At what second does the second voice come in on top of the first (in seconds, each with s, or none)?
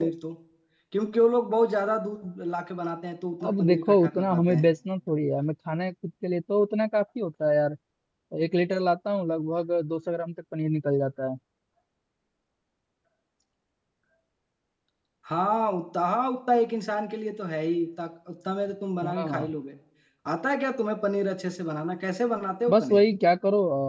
3.4 s